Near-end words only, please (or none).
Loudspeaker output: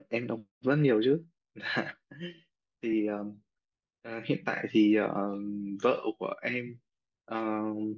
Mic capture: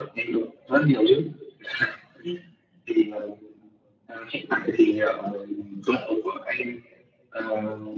none